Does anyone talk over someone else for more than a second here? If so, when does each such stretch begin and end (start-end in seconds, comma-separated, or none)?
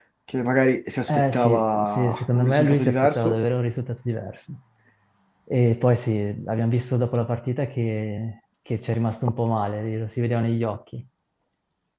1.1-3.5